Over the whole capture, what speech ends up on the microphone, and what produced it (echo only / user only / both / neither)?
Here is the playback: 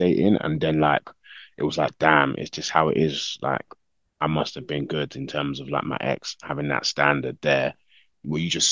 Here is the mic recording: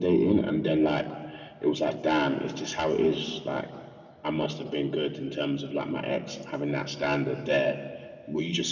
echo only